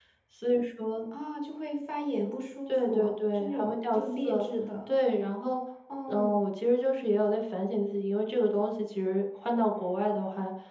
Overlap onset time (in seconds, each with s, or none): 2.7 s